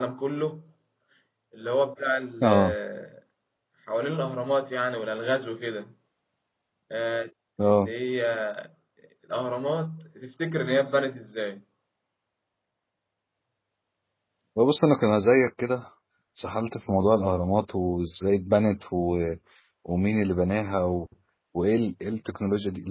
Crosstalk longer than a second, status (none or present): none